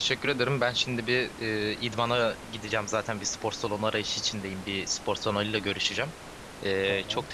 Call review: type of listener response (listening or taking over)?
listening